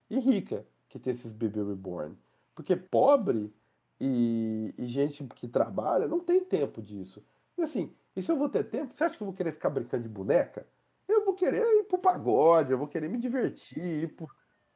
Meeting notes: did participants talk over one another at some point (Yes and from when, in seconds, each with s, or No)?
No